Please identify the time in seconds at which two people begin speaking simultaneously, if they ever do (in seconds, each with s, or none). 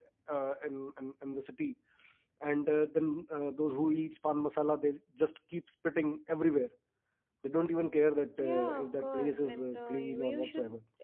8.4 s